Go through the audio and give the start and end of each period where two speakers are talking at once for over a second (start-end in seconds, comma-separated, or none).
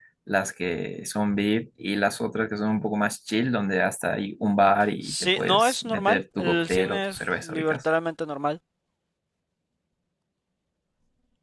5.1-7.8